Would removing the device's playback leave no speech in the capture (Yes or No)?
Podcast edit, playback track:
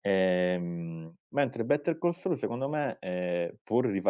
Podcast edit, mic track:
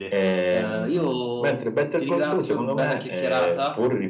No